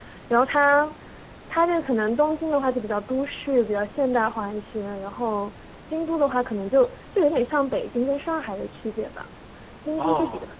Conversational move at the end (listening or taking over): listening